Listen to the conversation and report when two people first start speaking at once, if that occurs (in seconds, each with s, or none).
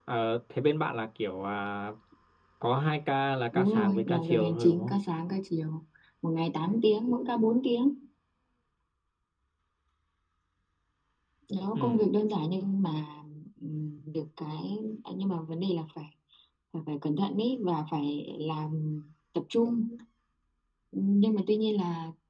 3.5 s